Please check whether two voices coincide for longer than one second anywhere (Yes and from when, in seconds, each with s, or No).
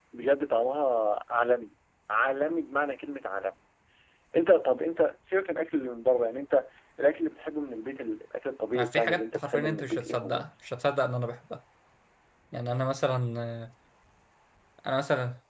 Yes, from 8.8 s